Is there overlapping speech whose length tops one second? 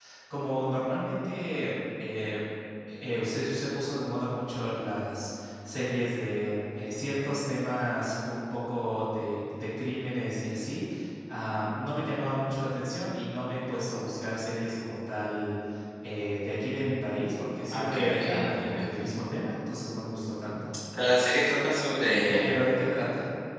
Yes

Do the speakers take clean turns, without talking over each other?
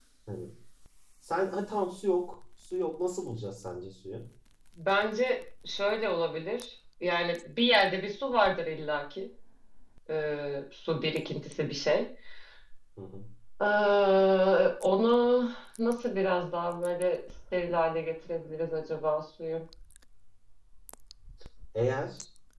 Yes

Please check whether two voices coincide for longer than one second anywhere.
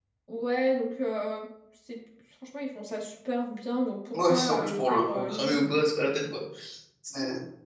Yes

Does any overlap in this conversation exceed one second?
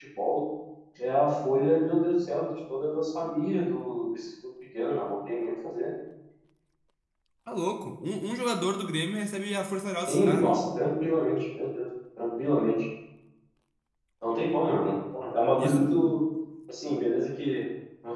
No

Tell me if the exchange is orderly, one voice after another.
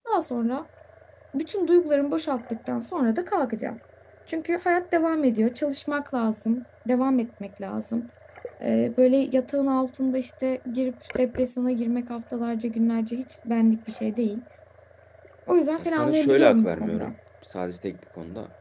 No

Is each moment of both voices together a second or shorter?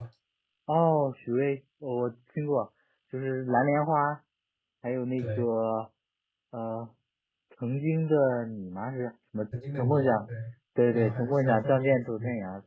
No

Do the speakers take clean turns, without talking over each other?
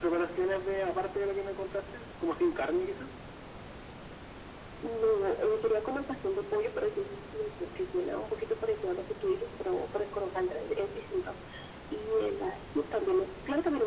Yes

